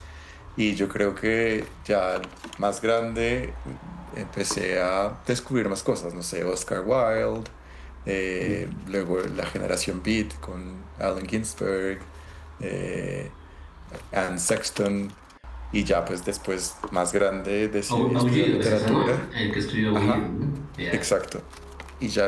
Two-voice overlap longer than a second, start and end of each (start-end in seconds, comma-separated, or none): 17.9-19.2